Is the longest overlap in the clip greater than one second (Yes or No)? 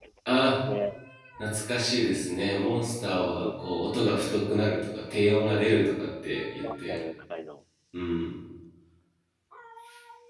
No